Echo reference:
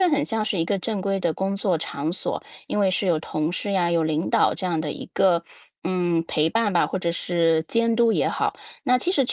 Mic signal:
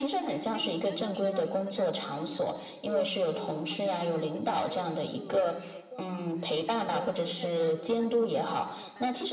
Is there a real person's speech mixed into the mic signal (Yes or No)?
Yes